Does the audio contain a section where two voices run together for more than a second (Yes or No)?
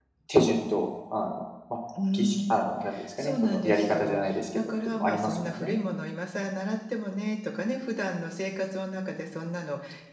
Yes